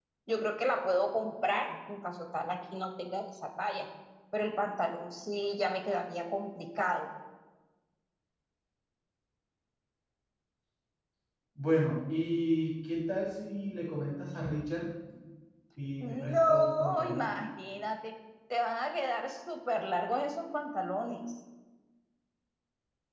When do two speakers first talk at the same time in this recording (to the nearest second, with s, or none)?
16 s